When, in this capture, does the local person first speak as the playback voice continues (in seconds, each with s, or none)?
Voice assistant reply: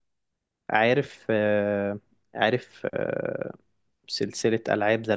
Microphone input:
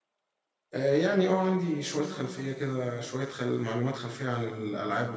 0.7 s